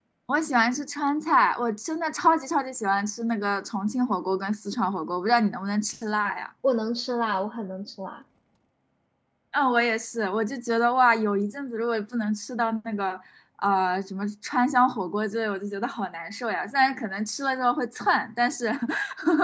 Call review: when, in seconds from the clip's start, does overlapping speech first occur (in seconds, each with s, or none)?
none